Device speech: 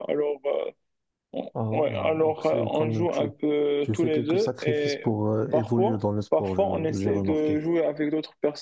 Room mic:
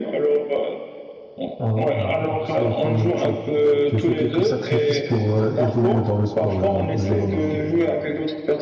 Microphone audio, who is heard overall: echo only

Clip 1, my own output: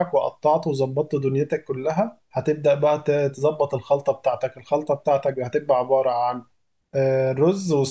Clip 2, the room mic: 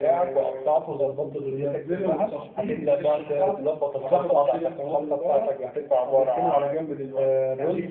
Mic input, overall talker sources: both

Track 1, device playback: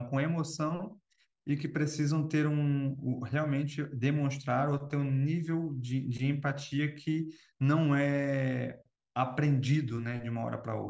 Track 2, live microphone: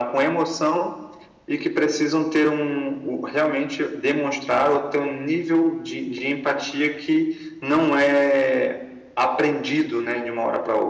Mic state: echo only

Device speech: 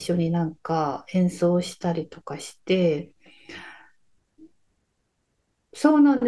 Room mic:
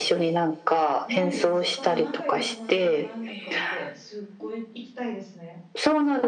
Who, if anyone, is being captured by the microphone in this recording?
both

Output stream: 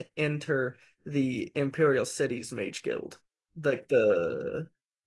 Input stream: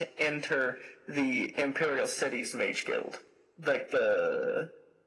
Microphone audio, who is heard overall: echo only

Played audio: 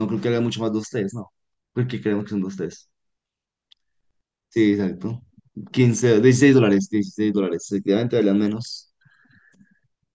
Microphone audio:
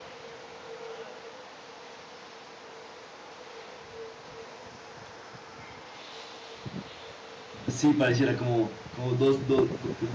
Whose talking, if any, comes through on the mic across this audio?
user only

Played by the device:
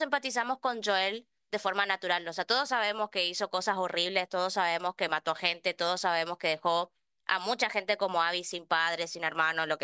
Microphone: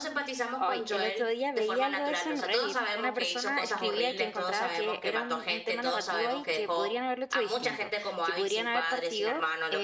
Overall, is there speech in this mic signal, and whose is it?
both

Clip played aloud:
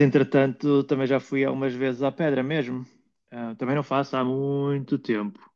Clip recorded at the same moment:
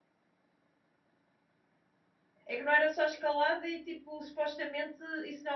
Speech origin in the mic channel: user only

